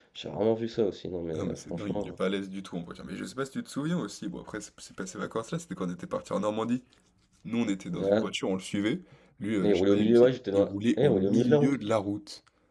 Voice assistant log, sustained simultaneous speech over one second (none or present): present